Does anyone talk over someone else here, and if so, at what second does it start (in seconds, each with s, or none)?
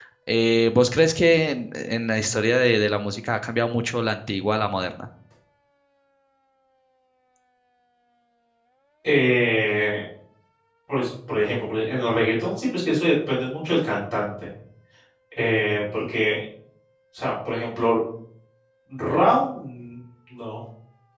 none